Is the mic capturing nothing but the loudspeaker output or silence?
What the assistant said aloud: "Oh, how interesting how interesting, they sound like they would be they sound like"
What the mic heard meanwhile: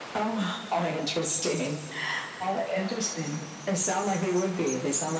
Yes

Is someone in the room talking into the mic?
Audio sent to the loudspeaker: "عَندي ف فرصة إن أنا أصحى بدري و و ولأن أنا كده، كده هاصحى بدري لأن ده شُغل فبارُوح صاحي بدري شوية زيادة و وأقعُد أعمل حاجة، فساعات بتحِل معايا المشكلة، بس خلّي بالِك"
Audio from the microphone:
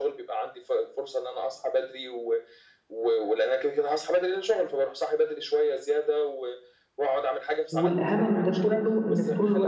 Yes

